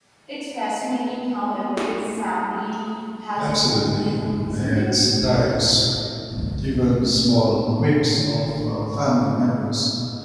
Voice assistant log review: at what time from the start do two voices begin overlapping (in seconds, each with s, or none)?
3.4 s